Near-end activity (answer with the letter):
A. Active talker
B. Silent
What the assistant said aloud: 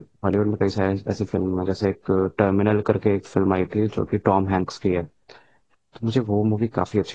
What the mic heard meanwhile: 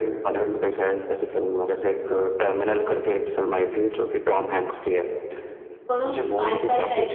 A